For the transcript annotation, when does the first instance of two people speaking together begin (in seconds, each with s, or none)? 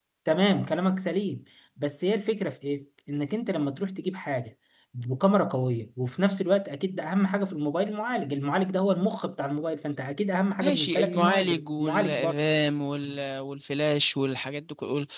10.6 s